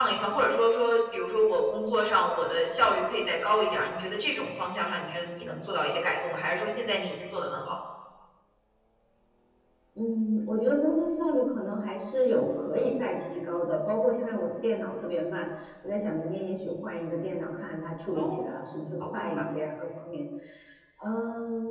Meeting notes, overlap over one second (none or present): none